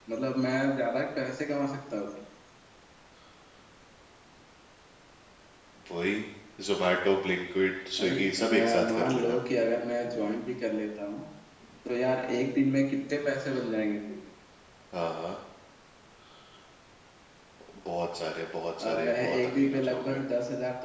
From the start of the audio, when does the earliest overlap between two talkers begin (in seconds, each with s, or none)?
8.0 s